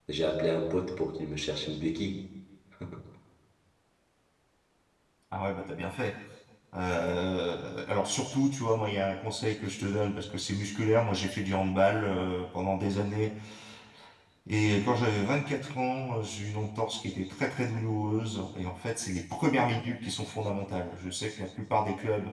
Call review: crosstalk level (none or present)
none